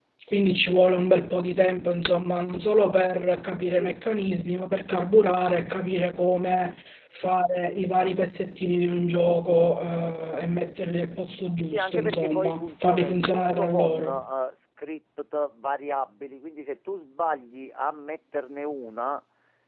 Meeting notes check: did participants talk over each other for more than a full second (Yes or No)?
Yes